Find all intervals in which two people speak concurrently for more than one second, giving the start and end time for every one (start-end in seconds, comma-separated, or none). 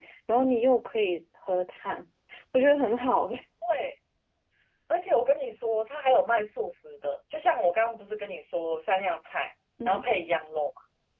none